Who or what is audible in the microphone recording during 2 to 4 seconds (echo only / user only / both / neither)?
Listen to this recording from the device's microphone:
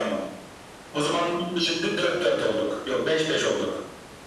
echo only